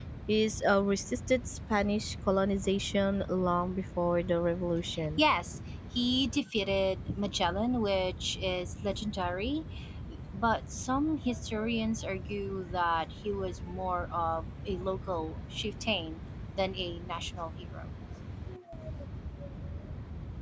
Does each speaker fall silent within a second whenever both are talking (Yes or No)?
Yes